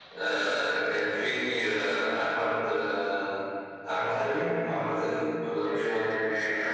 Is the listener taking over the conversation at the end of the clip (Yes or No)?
Yes